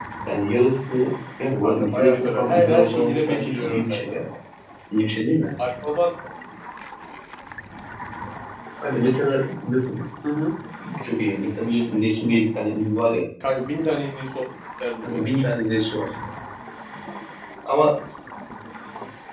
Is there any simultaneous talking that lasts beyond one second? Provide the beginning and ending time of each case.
1.6-4.2

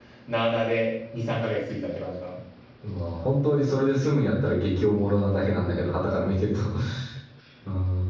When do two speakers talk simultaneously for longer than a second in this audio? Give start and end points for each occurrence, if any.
none

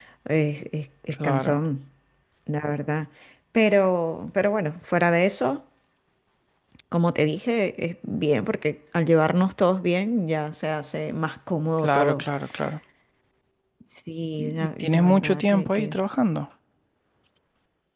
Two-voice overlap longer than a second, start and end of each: 14.4-15.9

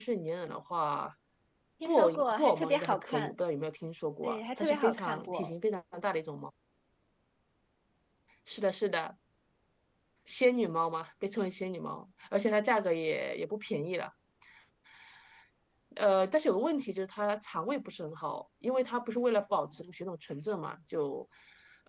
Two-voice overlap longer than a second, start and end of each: 1.9-3.4, 4.2-5.5

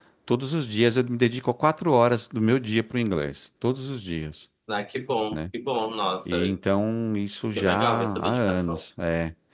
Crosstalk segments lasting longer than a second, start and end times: 7.5-8.8

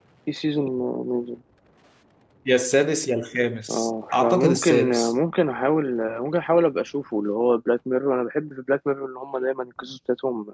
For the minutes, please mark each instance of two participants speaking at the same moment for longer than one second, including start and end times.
3.7-5.1

